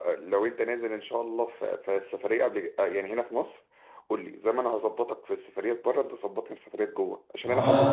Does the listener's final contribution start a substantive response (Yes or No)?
No